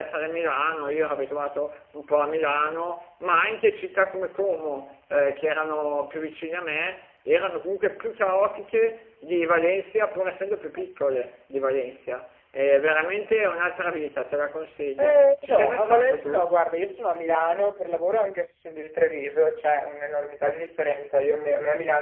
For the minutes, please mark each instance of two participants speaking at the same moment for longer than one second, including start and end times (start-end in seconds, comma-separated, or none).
15.0-16.4